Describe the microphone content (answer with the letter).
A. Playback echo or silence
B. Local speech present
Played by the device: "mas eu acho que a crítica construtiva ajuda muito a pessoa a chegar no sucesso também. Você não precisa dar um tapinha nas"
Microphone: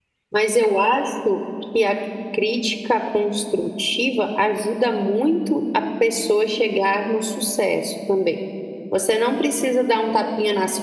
A